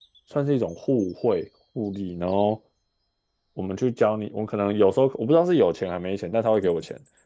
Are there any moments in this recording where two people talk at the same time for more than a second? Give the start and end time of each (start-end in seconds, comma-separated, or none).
none